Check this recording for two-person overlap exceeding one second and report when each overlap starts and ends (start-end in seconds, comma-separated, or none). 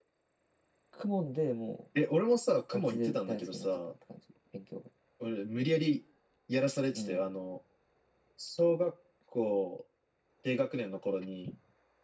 2.7-3.9